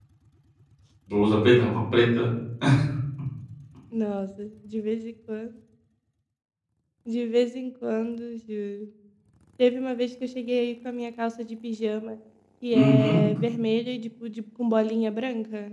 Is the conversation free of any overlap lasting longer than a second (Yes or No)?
Yes